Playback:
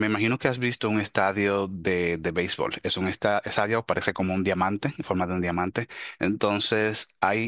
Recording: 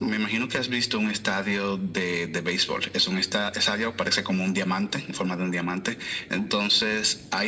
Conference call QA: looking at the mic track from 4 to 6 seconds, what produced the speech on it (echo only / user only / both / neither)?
echo only